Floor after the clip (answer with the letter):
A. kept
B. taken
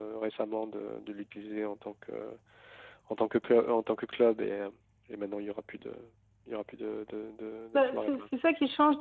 B